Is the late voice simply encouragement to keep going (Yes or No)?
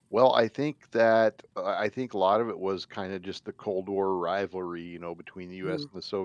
Yes